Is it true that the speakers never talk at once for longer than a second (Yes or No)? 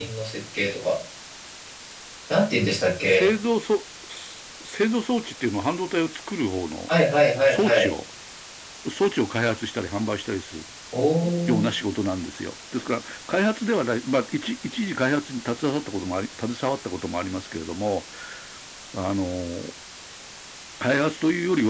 Yes